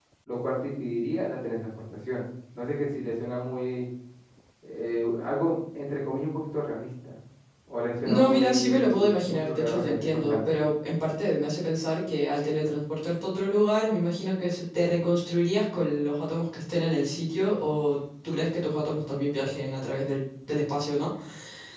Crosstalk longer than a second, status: present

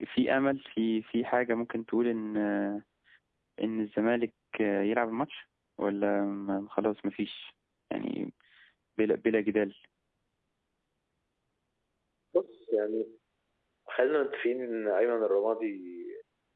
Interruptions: none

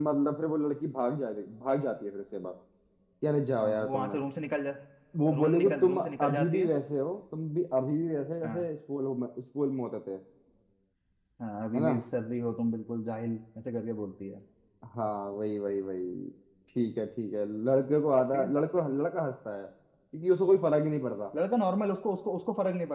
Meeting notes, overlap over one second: present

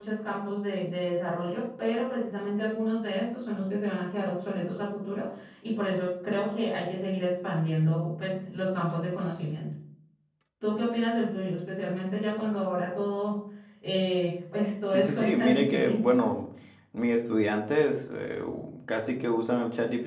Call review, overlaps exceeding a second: present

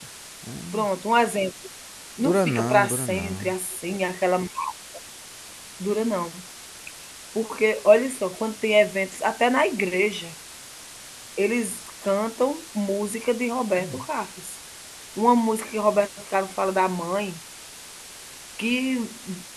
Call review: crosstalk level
present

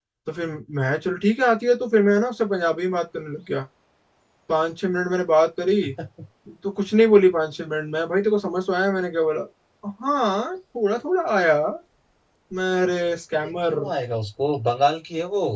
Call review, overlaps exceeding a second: none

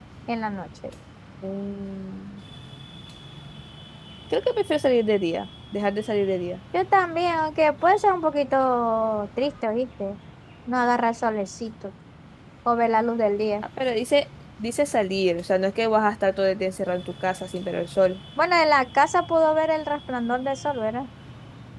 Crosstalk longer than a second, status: none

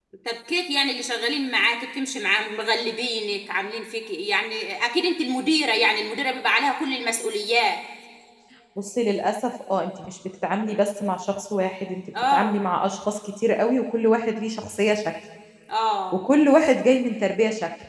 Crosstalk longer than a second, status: none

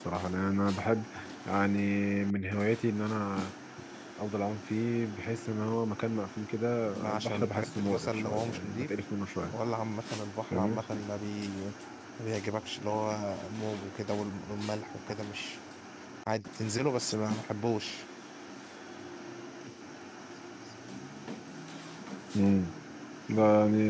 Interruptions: present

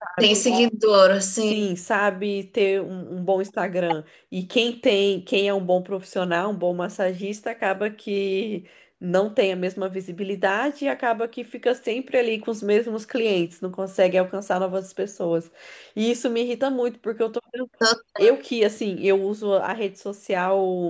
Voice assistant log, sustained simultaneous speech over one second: none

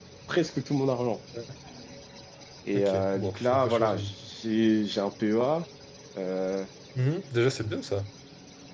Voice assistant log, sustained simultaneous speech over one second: present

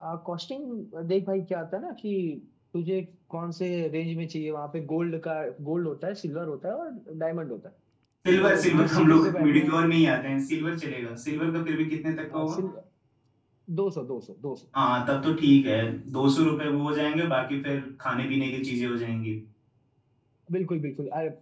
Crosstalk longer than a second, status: present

